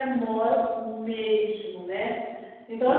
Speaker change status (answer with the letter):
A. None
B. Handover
A